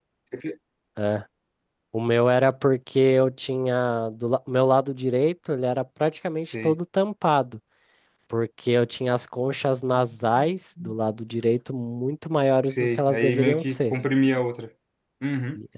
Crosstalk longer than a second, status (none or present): present